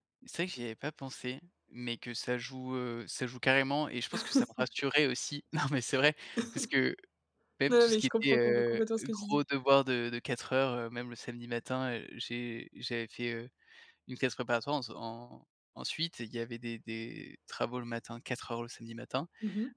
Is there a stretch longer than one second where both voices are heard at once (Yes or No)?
Yes